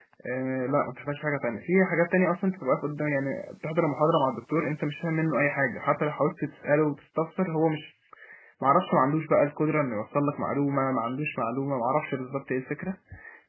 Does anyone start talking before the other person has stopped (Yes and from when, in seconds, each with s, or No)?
No